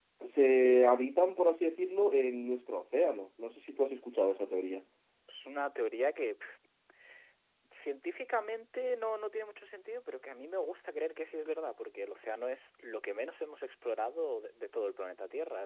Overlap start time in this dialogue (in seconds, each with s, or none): none